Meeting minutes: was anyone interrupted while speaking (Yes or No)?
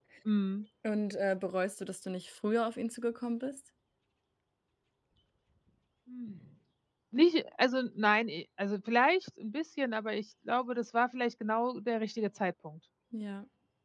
No